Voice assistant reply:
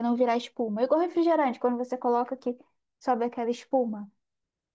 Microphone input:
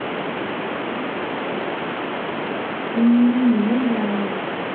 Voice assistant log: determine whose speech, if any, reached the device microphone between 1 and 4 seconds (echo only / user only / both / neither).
user only